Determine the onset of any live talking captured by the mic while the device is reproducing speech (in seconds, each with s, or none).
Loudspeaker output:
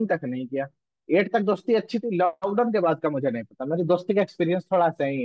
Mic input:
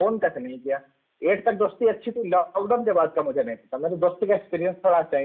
none